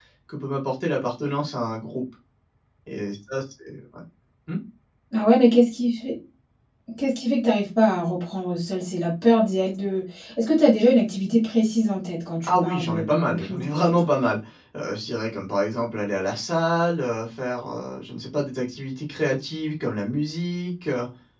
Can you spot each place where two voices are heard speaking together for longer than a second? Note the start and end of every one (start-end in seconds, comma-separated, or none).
12.4-14.0